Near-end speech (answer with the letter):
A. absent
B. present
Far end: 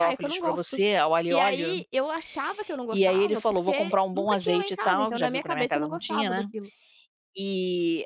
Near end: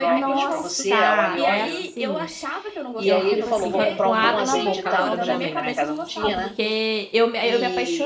B